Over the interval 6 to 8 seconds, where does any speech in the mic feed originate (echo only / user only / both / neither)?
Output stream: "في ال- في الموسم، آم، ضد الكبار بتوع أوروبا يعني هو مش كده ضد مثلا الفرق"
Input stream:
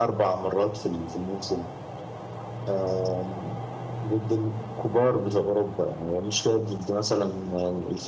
echo only